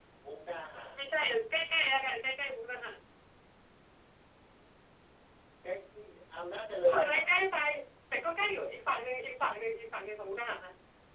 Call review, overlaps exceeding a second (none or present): none